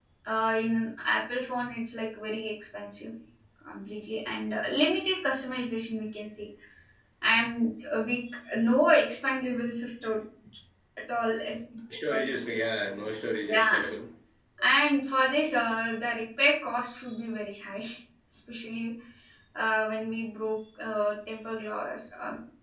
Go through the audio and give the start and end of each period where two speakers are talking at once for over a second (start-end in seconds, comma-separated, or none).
none